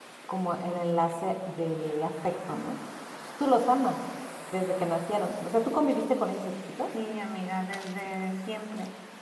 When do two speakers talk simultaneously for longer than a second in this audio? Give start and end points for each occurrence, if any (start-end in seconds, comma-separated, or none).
none